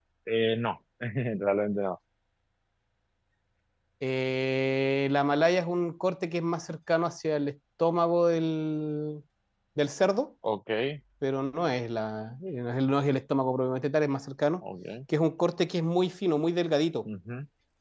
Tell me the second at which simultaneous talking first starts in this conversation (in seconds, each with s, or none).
none